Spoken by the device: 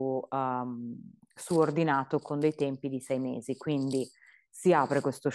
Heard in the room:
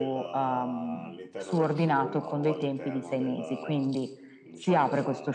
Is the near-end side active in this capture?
Yes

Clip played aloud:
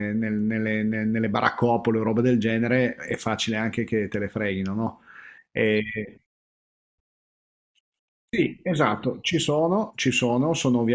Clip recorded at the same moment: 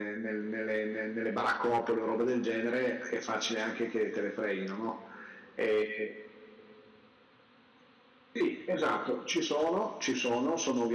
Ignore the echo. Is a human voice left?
No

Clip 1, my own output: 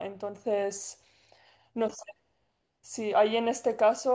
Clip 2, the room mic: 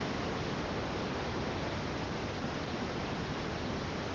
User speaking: No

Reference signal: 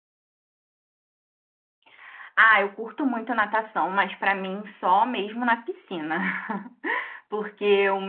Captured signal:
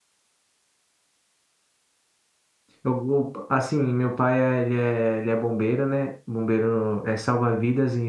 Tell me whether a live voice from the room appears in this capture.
Yes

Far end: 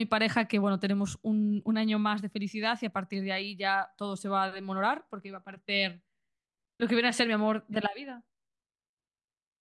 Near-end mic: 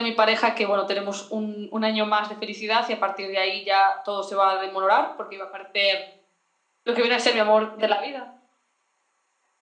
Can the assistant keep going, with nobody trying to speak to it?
Yes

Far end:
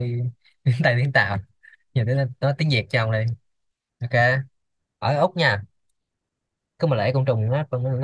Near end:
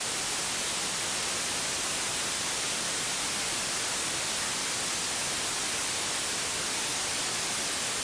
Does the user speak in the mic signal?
No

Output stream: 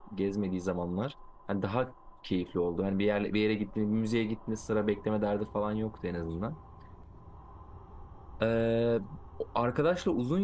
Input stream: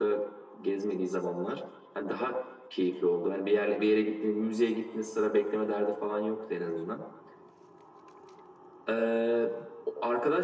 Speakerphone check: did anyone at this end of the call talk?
No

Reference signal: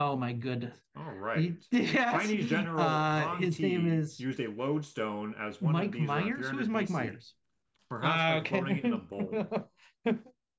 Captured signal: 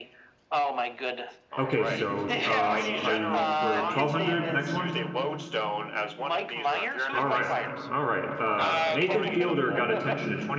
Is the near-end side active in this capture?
Yes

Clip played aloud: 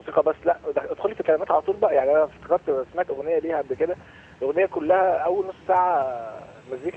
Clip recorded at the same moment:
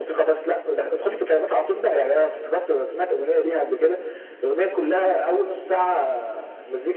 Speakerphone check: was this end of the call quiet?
Yes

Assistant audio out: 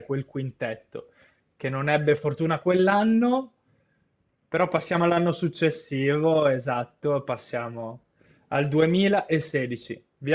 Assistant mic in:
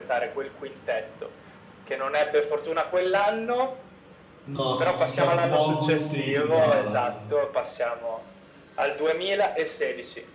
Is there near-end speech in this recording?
Yes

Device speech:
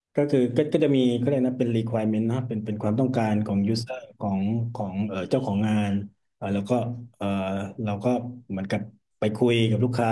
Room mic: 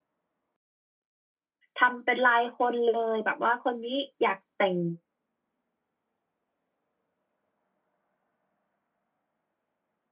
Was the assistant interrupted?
Yes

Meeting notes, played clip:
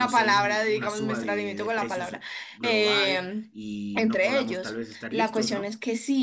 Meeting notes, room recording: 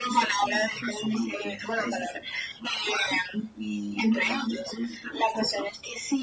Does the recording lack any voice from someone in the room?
Yes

